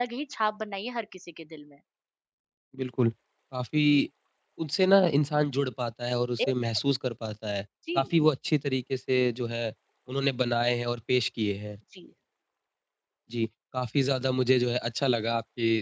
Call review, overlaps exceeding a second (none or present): none